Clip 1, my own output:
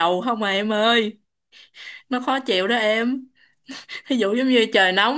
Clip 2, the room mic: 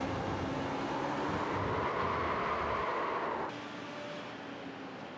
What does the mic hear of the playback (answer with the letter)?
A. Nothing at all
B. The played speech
A